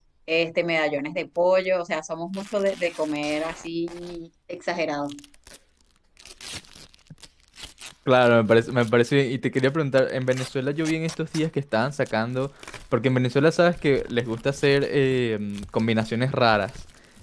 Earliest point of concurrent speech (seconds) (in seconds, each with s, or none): none